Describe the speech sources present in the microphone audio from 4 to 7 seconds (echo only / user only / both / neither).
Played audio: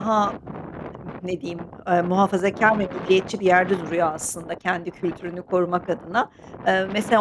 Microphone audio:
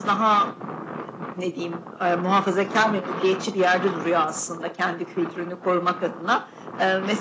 echo only